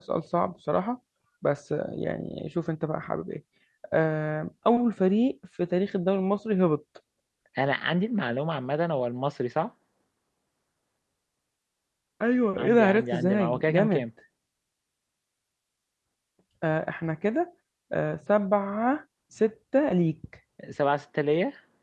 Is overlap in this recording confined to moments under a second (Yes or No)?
No